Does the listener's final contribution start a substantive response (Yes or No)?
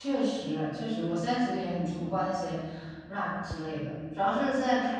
No